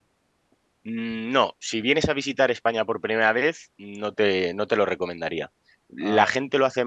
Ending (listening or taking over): listening